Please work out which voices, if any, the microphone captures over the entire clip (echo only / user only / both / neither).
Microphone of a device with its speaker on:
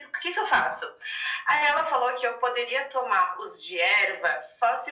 echo only